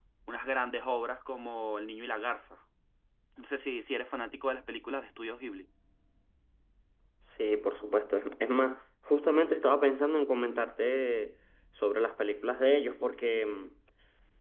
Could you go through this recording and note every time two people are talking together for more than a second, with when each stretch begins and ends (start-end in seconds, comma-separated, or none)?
none